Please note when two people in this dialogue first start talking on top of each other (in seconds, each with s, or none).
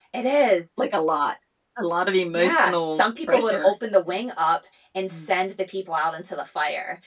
2.3 s